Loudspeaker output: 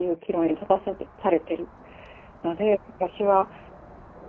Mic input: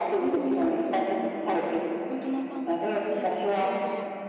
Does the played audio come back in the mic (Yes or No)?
Yes